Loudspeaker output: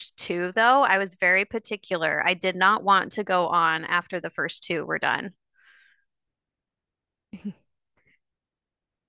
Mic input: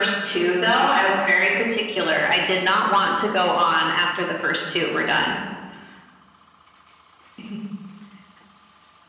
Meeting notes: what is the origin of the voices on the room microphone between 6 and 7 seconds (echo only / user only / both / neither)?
neither